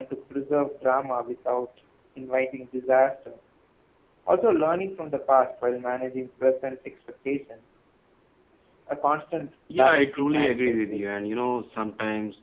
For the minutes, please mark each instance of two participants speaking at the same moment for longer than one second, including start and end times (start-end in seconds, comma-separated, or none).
9.7-11.1